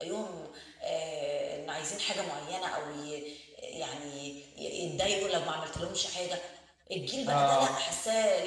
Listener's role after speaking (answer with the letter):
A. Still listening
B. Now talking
A